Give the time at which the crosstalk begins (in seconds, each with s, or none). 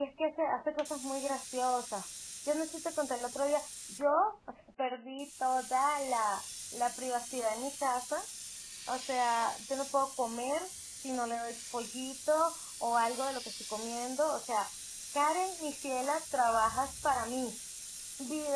none